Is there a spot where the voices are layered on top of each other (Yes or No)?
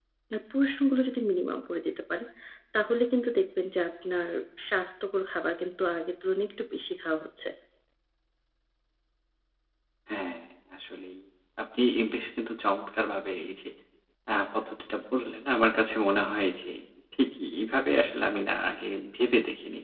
No